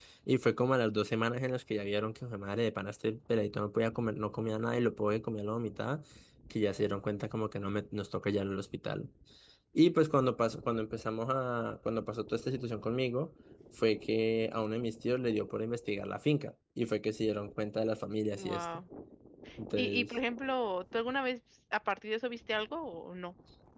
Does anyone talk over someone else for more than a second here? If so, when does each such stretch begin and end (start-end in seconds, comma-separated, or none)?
none